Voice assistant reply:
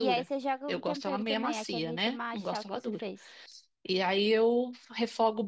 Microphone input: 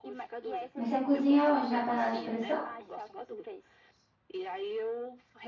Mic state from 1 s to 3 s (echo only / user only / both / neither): both